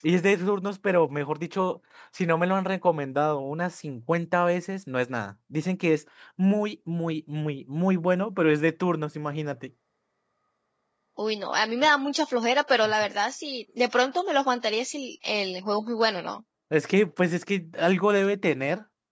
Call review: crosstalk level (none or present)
none